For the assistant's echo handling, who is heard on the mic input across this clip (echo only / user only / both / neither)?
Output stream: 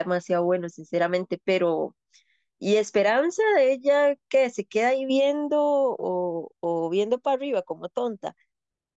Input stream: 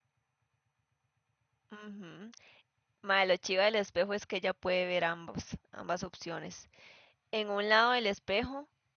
user only